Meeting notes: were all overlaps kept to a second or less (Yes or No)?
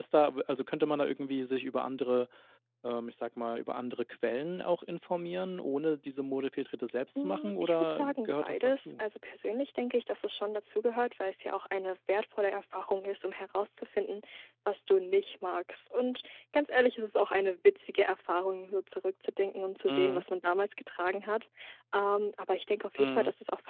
No